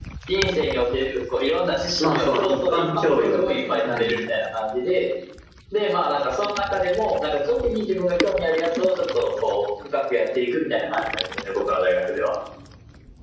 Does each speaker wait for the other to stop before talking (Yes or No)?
No